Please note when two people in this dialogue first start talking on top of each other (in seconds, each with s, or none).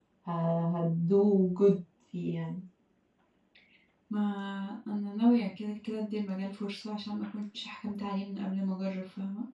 none